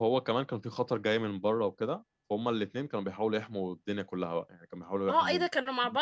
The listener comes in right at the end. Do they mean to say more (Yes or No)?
Yes